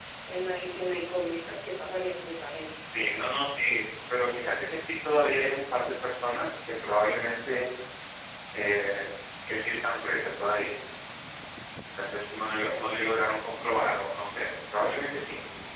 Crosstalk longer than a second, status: none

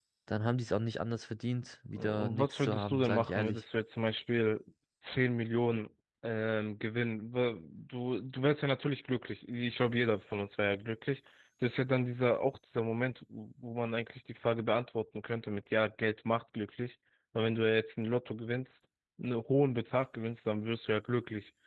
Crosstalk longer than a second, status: present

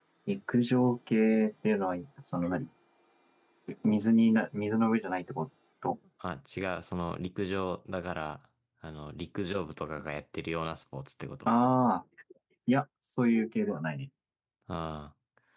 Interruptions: none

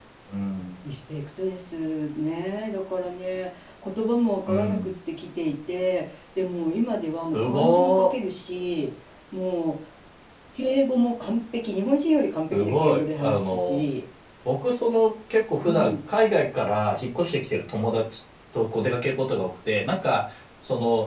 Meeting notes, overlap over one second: present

